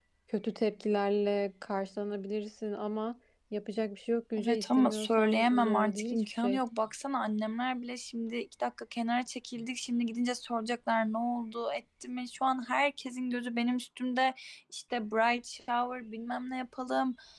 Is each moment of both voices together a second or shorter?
No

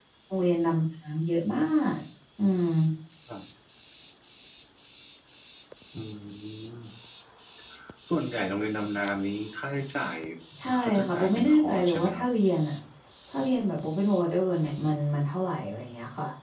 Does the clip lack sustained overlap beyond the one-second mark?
No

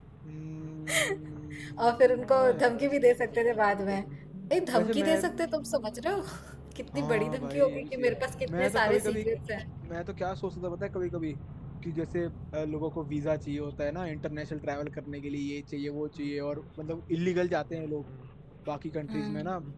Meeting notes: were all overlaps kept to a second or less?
No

